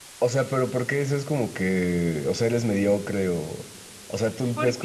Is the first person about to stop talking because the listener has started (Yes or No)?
No